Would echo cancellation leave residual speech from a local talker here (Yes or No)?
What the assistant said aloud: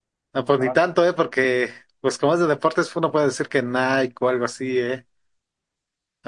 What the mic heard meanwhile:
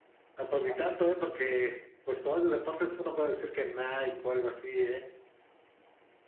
No